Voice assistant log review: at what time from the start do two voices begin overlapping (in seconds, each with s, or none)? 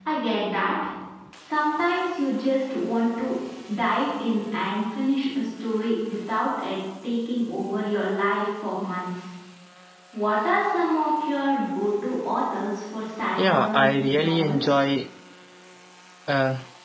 13.4 s